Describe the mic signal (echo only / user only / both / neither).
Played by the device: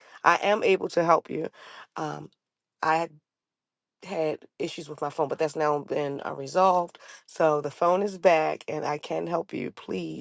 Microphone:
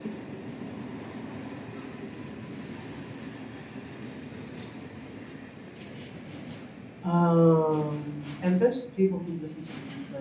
user only